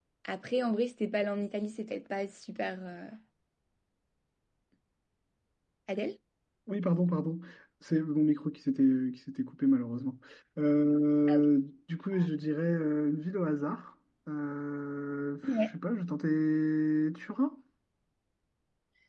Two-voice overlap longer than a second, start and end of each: none

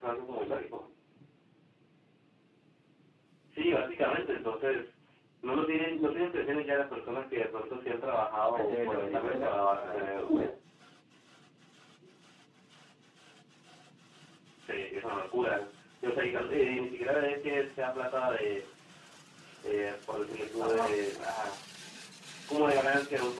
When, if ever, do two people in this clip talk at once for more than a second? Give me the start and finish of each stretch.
8.5-10.3

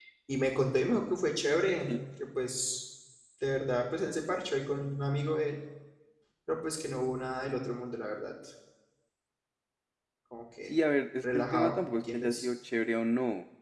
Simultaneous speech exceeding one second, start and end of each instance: 11.2-12.4

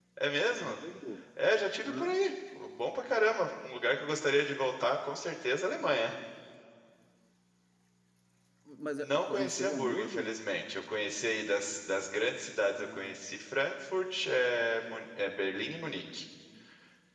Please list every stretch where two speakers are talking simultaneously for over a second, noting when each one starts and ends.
9.0-10.3

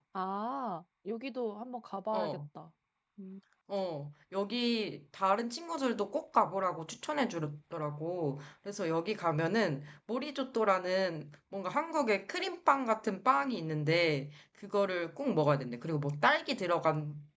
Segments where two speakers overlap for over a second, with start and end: none

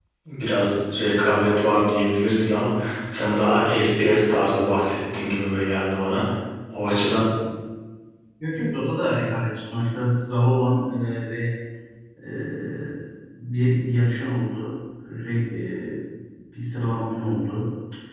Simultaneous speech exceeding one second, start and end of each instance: none

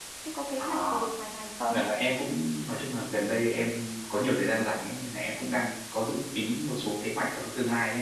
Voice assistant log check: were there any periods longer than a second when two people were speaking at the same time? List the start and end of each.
none

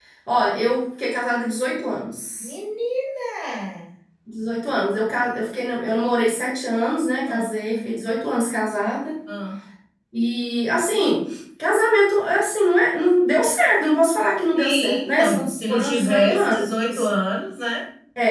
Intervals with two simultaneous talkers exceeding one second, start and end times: 14.6-16.7

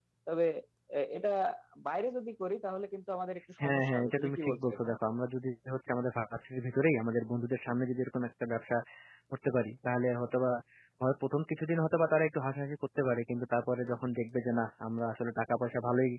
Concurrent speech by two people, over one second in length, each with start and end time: 3.6-4.9

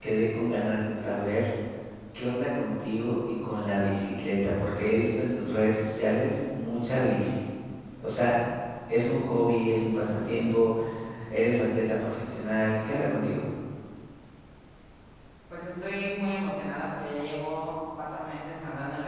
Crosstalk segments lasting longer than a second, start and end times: none

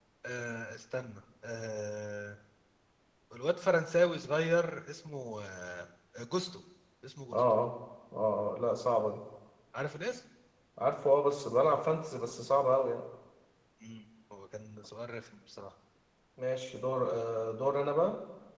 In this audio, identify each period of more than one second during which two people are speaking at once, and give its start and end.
none

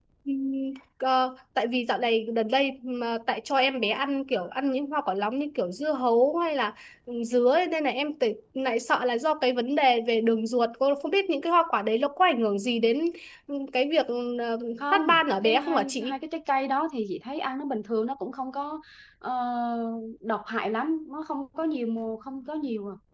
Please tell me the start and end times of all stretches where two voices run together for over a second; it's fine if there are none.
14.8-16.2

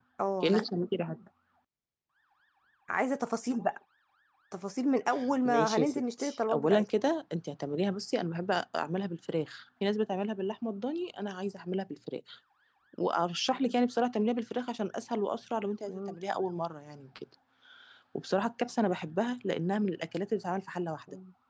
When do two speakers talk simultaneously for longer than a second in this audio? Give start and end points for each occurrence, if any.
5.5-6.8

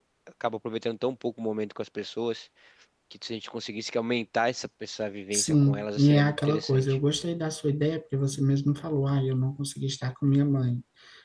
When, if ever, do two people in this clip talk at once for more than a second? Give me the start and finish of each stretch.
5.3-7.0

